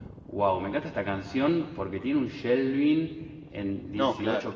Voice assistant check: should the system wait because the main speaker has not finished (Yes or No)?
Yes